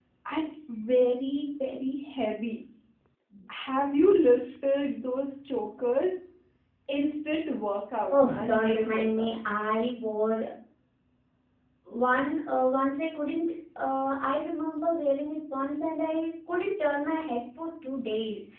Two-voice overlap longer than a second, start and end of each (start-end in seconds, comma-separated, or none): 8.1-9.4